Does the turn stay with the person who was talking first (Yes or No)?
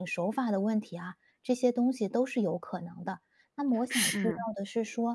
Yes